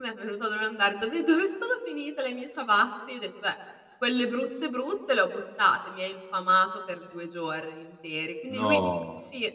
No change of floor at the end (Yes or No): Yes